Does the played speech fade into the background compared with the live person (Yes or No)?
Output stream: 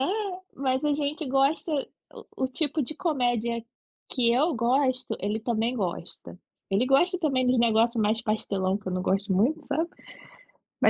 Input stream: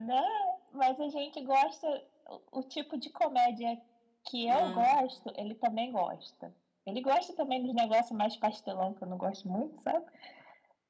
No